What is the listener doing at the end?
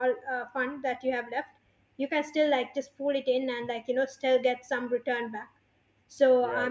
listening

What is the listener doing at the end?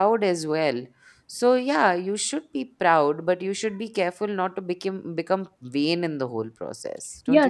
taking over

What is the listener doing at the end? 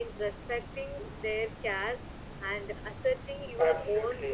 taking over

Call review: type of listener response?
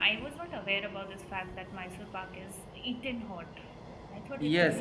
taking over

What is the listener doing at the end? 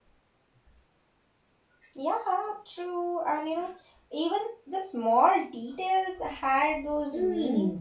taking over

